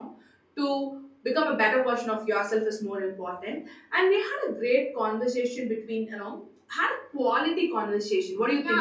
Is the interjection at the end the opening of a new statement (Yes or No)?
Yes